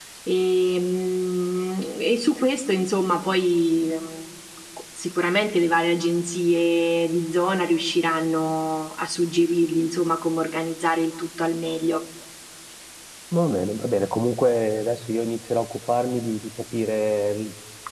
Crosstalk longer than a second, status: none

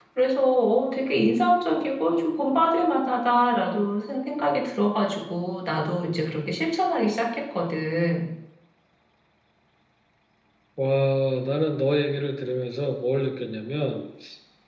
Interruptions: none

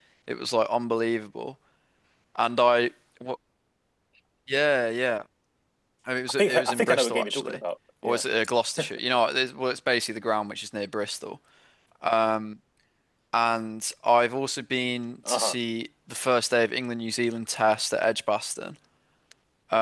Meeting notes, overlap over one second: present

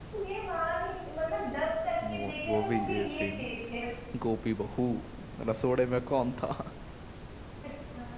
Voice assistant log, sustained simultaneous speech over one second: present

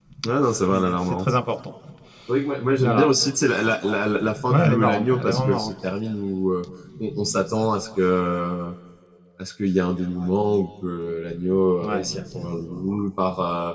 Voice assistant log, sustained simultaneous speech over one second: present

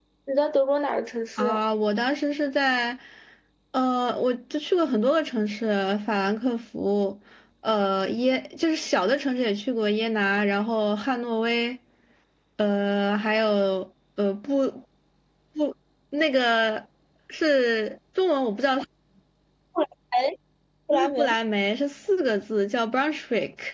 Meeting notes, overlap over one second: none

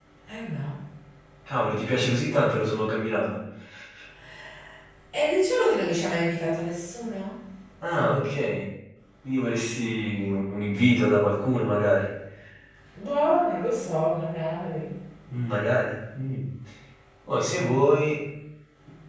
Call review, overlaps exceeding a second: none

